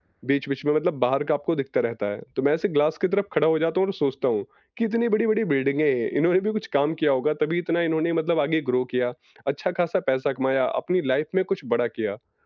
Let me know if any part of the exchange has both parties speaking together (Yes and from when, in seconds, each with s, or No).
No